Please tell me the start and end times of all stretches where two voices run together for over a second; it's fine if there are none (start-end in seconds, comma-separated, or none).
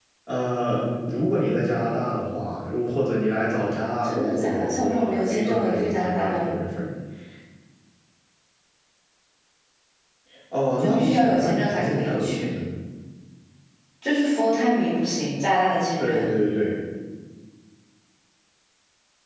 4.0-6.6, 10.8-12.5